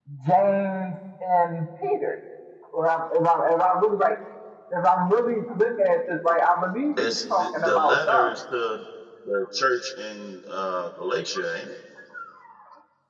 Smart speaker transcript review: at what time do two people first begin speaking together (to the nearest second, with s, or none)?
7 s